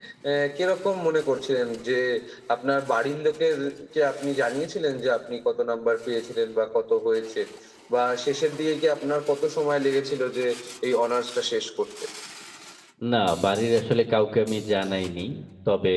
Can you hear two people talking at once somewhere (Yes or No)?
No